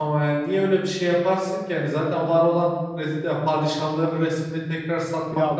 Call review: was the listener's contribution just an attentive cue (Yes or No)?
No